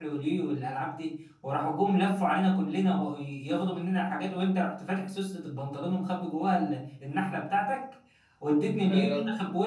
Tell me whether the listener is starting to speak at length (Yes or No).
No